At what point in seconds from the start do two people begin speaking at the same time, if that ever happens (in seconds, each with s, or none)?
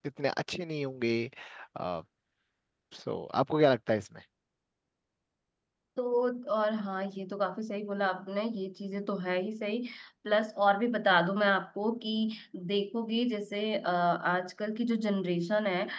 none